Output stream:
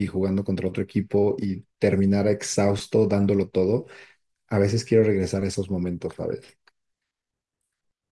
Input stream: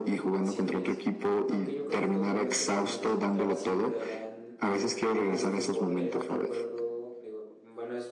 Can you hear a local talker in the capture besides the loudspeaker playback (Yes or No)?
Yes